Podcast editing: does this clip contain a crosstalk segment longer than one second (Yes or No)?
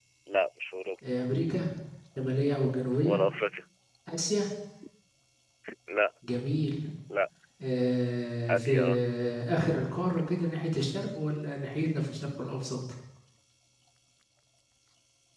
No